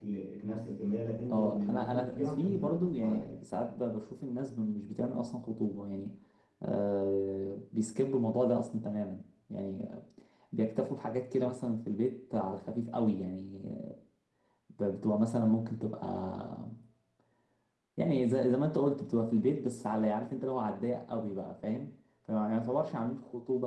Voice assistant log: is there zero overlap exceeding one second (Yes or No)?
No